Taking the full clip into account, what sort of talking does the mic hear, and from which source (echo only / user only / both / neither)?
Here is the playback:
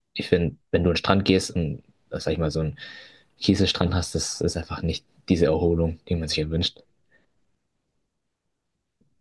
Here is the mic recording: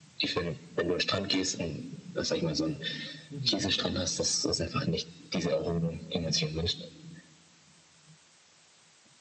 both